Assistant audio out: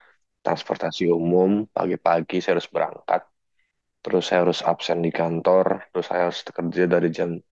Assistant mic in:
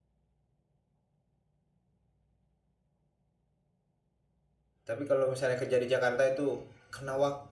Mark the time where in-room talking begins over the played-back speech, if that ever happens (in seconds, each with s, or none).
4.9 s